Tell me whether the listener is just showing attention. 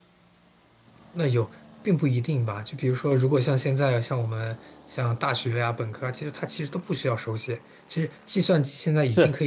Yes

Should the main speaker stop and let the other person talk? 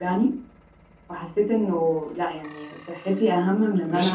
Yes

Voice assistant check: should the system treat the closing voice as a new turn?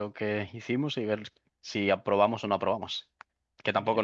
No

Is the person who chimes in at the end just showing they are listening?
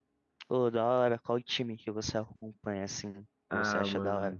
No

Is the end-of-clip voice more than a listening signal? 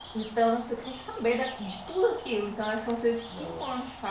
No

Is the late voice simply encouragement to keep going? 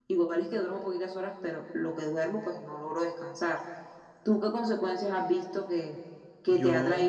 Yes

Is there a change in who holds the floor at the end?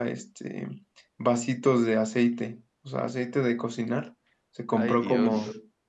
No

